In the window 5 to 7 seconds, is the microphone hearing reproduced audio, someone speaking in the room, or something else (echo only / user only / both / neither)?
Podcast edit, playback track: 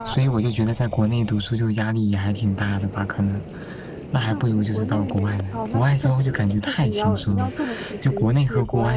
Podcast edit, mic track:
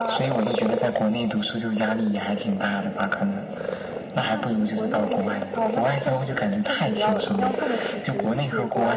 echo only